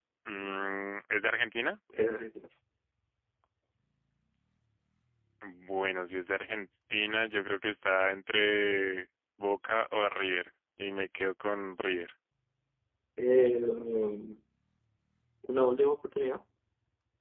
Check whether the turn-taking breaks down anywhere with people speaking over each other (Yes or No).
No